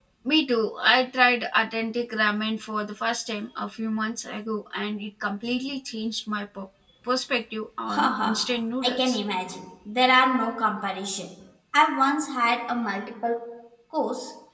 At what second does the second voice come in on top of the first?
7.9 s

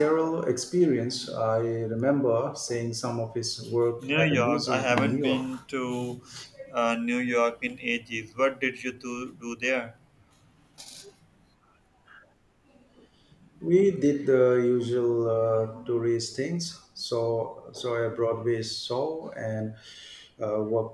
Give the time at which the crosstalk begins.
4.0 s

